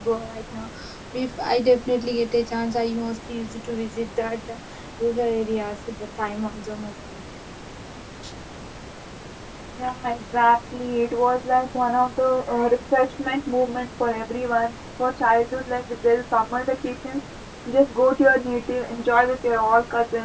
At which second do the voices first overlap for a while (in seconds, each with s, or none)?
none